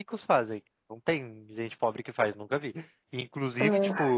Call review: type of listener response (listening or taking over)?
listening